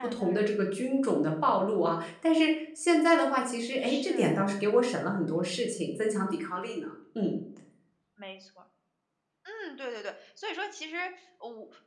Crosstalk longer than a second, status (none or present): none